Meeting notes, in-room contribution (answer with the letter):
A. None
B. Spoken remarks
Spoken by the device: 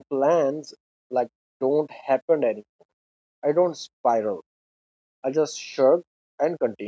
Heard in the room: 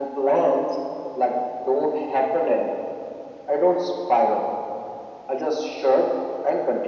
A